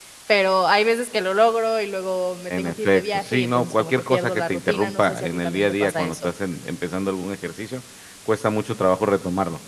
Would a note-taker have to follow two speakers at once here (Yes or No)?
Yes